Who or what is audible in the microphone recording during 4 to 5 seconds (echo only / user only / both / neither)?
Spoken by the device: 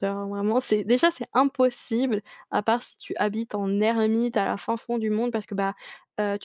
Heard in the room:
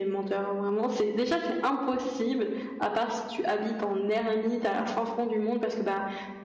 echo only